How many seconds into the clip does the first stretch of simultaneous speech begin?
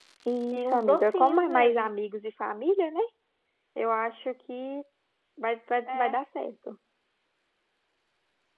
0.5 s

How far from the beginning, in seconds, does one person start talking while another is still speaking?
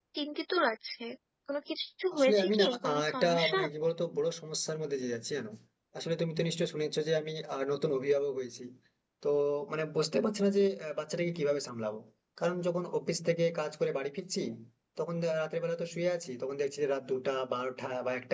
2.2 s

